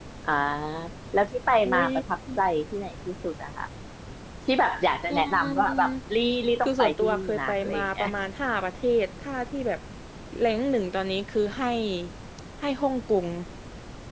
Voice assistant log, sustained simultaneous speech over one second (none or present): present